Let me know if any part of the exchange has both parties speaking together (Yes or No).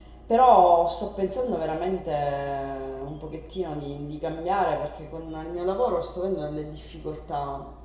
No